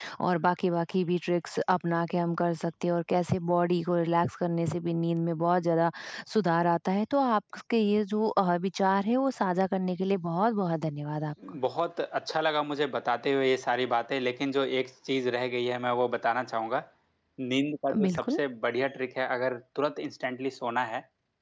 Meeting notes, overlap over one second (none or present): none